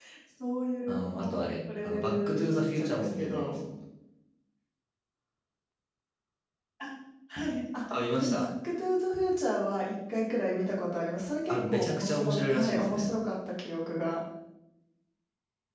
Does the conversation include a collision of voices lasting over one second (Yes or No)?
Yes